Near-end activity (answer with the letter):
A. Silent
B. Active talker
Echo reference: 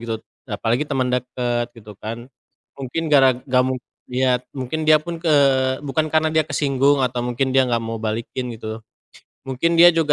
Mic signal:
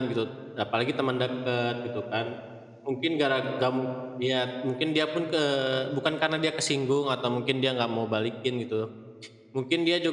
A